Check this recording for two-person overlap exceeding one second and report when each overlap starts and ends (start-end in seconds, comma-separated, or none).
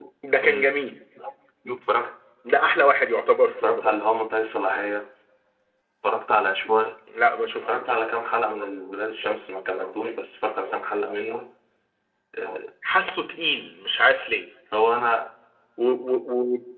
none